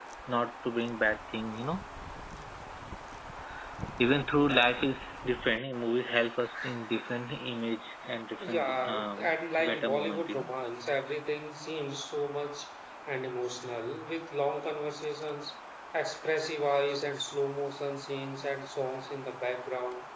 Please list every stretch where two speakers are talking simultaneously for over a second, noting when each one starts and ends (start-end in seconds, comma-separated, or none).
8.5-10.5